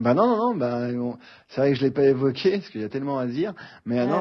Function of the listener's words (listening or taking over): listening